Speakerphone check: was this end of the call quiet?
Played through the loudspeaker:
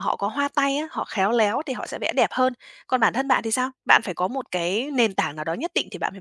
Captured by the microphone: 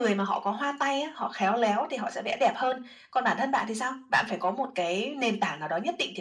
Yes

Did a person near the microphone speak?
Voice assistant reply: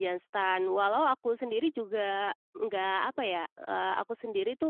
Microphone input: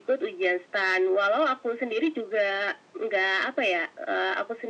No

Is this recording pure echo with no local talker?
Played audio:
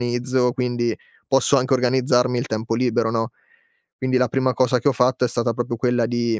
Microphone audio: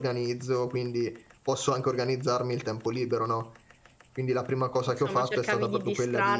No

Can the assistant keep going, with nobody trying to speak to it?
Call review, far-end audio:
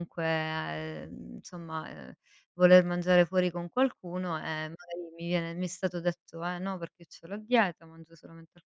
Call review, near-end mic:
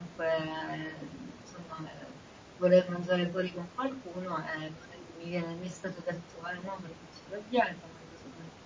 Yes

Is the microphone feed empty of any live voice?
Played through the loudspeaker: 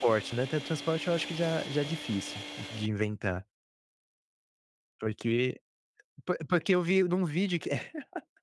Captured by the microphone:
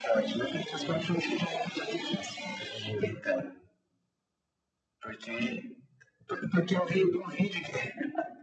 Yes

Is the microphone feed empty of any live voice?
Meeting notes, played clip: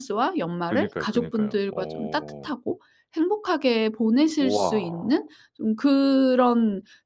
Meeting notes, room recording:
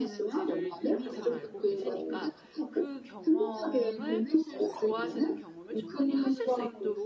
No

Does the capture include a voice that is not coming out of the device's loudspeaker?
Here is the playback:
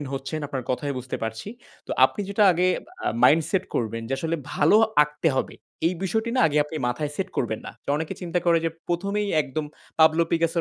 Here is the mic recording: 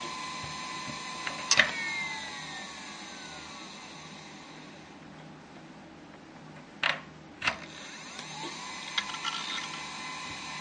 No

